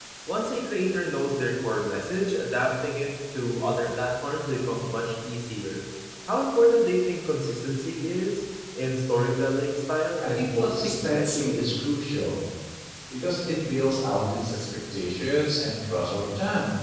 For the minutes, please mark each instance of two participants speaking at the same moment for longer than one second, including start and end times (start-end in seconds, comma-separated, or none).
10.3-11.6